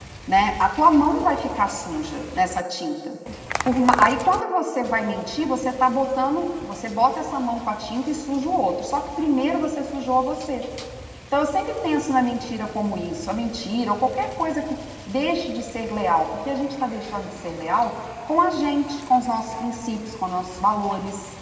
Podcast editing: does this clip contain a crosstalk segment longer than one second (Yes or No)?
No